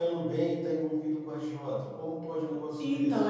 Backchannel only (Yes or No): No